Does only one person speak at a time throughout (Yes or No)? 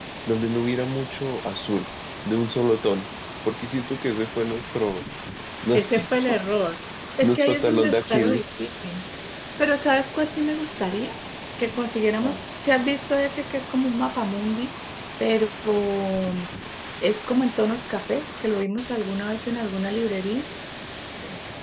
No